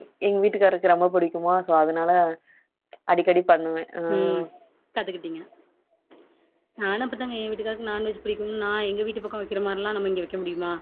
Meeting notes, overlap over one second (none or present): none